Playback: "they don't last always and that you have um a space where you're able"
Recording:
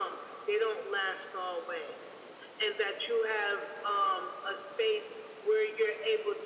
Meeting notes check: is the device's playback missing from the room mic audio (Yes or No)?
No